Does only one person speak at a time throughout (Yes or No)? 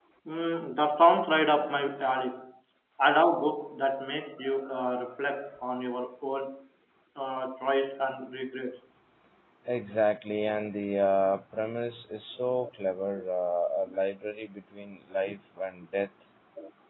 Yes